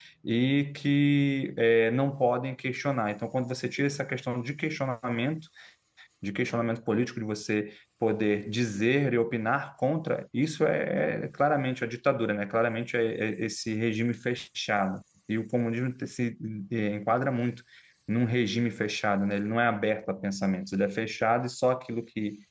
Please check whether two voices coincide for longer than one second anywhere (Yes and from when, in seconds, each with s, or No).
No